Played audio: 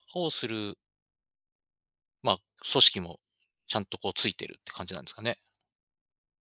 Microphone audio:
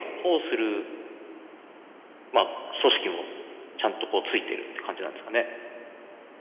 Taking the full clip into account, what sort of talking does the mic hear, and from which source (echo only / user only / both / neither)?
echo only